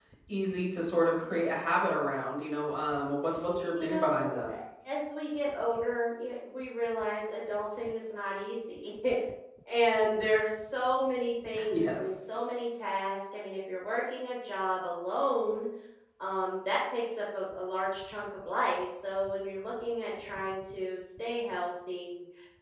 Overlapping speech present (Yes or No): Yes